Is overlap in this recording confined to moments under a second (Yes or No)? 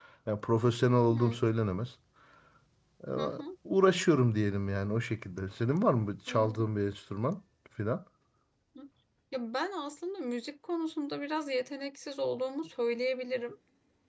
Yes